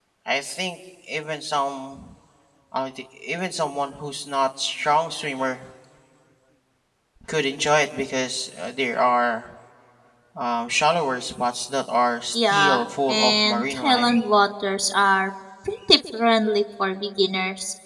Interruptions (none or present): present